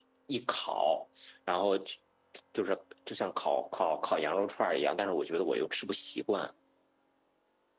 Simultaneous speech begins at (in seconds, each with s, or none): none